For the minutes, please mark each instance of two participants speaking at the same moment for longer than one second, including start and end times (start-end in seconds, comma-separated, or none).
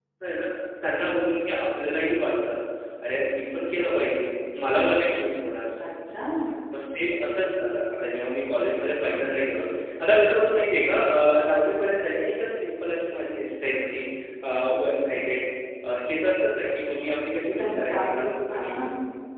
17.5-18.7